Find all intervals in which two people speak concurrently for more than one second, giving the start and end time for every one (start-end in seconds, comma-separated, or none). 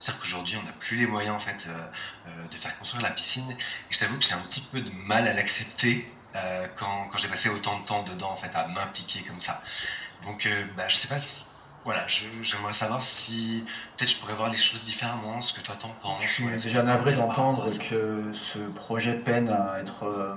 16.2-17.8